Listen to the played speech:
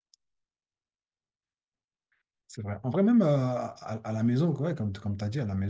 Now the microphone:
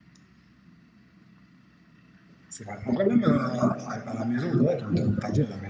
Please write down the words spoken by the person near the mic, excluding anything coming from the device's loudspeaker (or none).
none